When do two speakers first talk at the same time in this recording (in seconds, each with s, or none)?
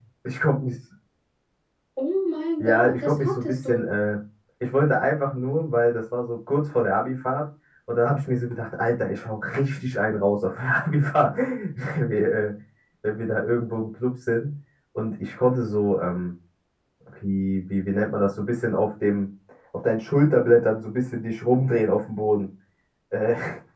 2.6 s